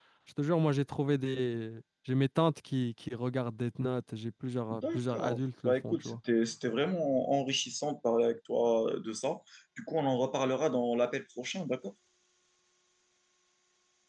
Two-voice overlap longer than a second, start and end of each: 4.7-6.2

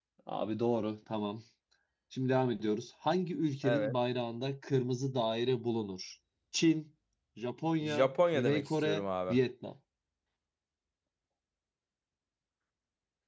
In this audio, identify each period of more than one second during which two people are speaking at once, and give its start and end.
7.8-9.4

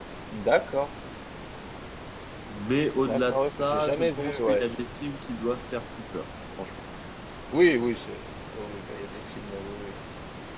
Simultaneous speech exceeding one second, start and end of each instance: 3.0-4.6

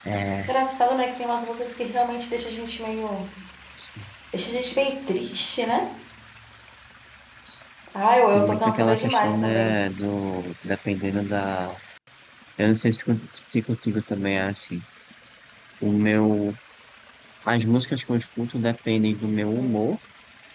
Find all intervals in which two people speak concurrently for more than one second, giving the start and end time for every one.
8.3-9.7

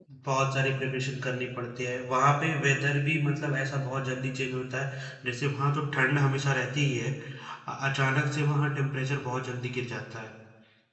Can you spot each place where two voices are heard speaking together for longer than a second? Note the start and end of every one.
none

